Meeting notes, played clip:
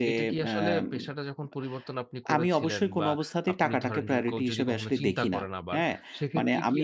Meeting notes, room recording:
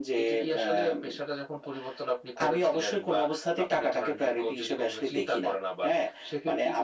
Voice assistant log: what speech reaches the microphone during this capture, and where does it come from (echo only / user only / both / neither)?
echo only